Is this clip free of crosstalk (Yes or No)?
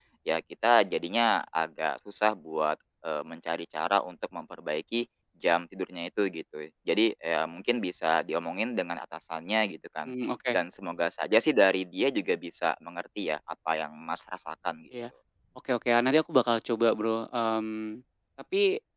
Yes